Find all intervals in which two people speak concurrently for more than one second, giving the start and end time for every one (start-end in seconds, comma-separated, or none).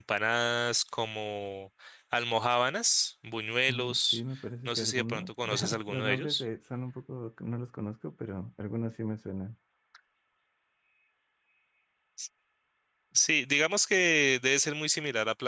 4.7-6.4